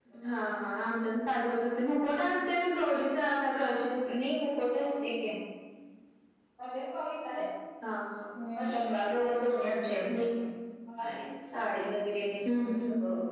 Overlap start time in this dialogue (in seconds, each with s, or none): 8.6 s